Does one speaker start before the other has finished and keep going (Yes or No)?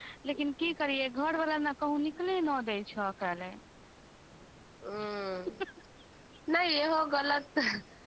No